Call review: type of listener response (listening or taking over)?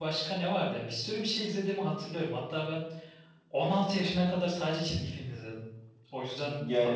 taking over